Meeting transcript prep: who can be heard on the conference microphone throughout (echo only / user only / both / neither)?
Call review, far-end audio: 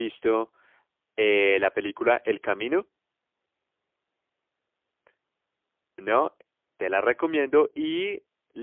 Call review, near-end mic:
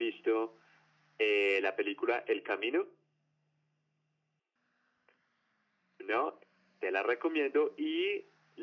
echo only